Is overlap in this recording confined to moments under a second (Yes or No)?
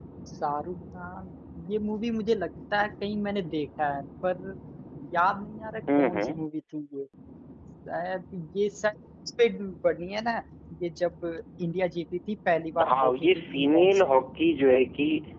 No